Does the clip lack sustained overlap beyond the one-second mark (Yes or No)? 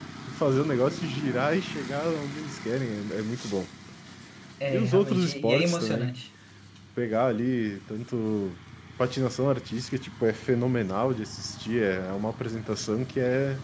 No